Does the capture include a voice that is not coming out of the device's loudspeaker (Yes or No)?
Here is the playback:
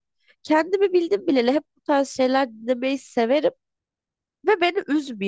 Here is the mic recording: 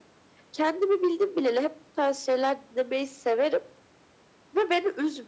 No